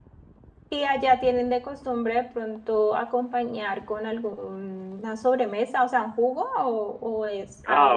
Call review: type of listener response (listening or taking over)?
taking over